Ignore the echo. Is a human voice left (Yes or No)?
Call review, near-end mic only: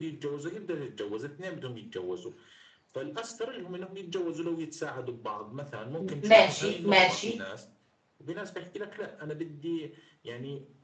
Yes